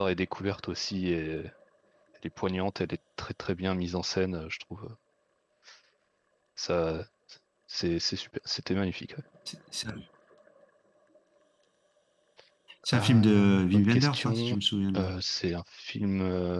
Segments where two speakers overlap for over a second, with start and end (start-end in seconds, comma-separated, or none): 12.9-14.6